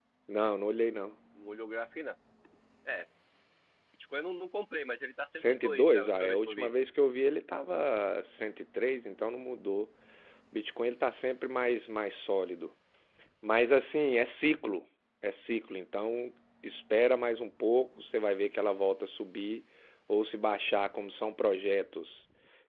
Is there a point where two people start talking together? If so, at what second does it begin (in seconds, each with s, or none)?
5.3 s